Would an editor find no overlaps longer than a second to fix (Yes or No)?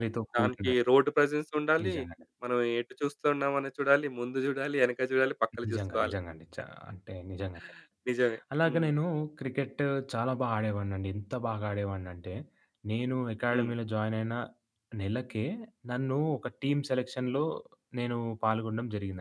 Yes